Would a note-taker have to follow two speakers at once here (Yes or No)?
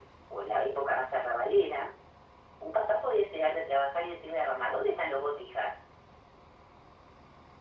No